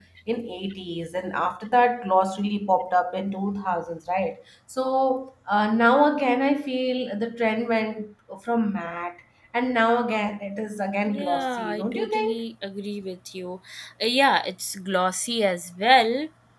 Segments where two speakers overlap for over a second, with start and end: 11.1-12.4

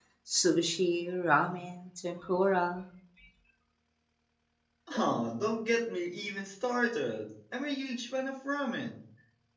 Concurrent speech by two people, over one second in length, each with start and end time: none

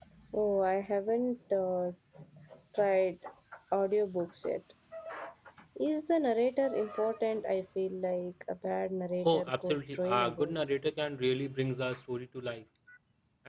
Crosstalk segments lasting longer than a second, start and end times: 9.2-10.5

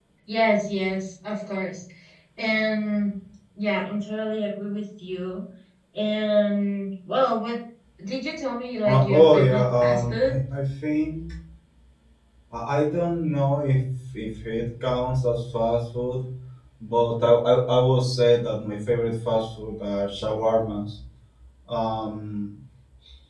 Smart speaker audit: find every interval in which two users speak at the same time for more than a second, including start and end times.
8.8-10.3

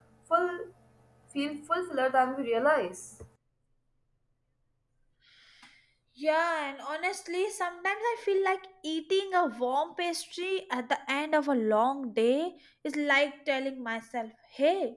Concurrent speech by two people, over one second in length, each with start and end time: none

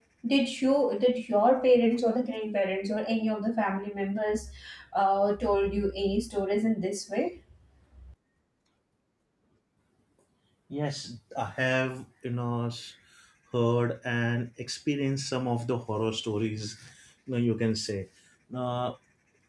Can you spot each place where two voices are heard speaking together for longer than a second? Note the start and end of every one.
none

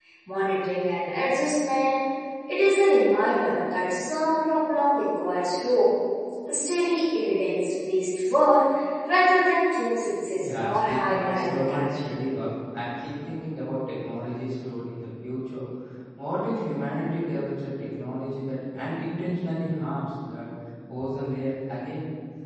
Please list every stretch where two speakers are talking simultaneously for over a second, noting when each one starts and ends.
10.4-12.0

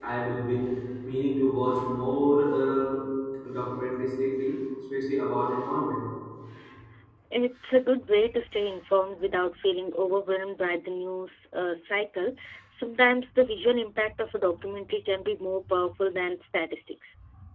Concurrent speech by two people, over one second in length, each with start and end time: none

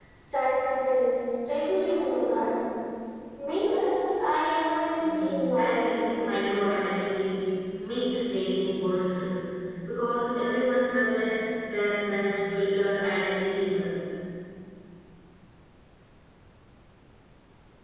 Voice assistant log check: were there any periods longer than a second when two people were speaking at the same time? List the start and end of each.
5.0-6.2

